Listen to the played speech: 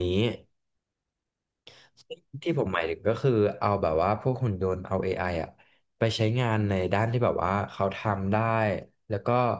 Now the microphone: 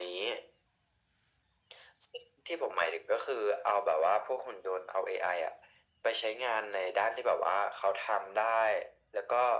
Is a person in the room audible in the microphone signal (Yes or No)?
No